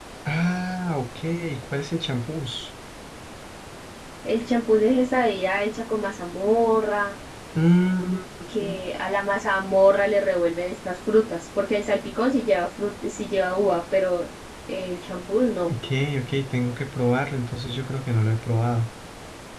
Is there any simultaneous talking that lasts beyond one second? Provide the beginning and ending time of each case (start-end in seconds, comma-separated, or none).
none